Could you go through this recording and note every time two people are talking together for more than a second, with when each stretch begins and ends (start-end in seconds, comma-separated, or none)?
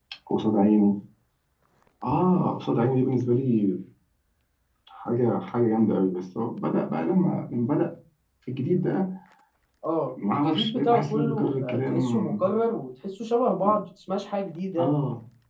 10.3-12.5